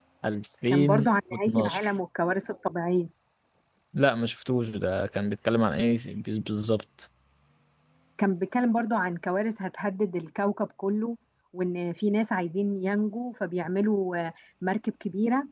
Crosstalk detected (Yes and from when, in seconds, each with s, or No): Yes, from 0.7 s